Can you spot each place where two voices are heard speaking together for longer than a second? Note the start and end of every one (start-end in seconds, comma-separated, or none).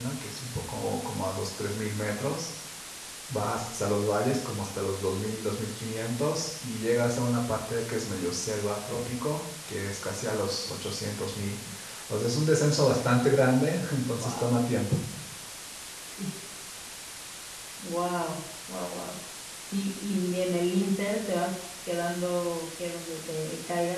none